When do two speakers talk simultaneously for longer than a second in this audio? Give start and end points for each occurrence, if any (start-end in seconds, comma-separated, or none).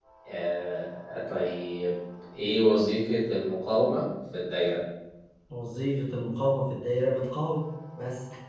none